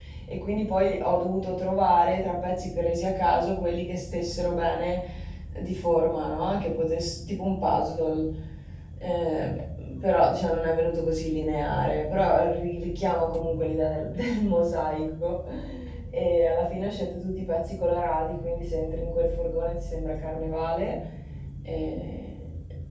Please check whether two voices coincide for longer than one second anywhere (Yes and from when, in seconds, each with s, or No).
No